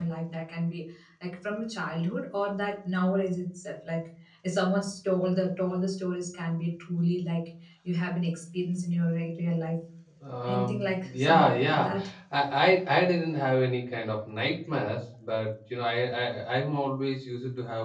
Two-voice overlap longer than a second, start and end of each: 10.5-11.9

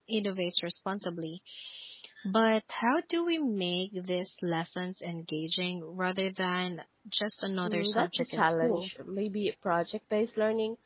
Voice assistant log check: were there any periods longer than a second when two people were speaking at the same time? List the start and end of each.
7.6-8.9

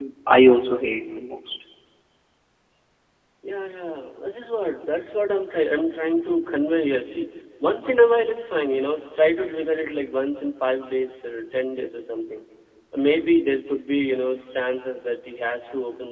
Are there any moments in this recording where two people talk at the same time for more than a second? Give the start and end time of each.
none

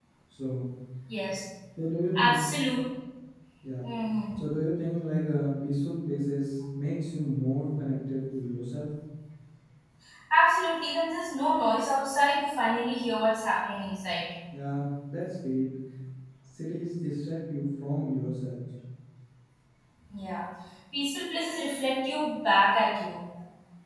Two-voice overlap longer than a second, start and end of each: none

